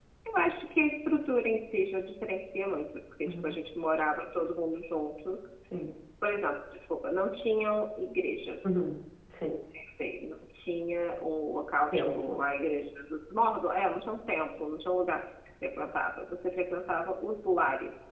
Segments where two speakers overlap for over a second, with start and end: none

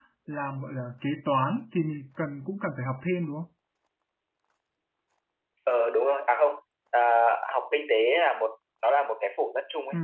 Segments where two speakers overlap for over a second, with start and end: none

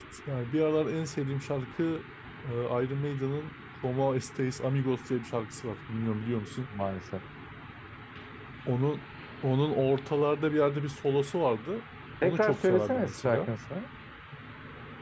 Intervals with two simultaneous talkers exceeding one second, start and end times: 12.2-13.5

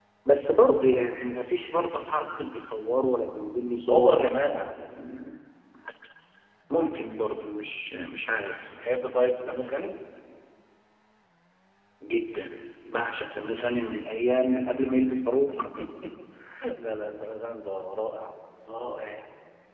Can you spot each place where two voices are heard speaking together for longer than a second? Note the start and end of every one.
none

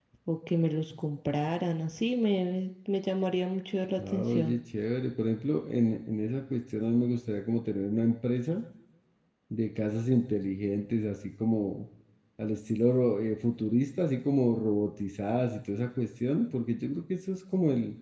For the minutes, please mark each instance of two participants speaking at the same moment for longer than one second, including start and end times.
none

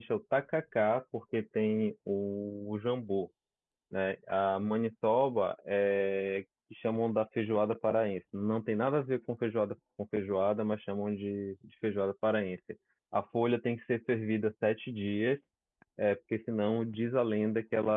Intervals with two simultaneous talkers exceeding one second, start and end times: none

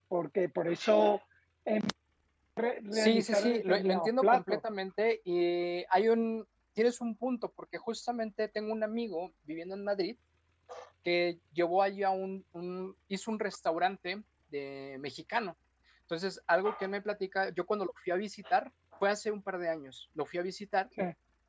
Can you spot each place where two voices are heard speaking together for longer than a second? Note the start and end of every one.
2.9-4.6

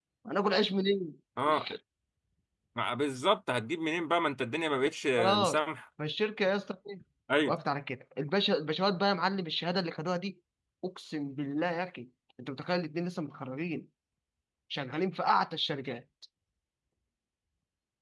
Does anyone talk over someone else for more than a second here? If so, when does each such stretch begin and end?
none

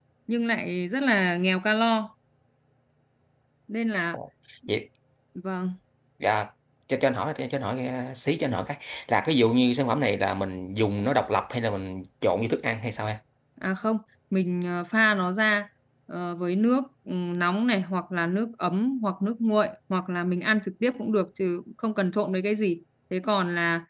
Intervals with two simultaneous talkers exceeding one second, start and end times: none

